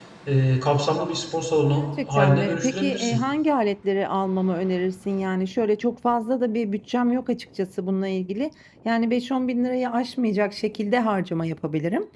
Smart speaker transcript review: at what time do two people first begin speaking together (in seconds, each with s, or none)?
1.7 s